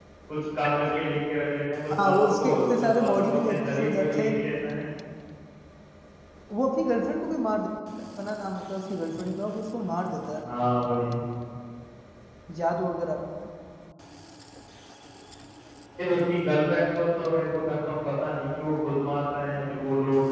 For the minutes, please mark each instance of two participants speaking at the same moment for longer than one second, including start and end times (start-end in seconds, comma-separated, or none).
2.0-4.3